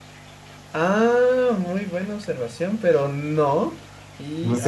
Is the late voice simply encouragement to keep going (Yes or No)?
Yes